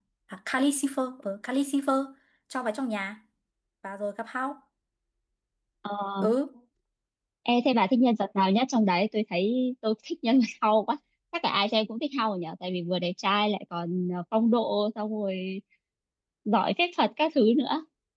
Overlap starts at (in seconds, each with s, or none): none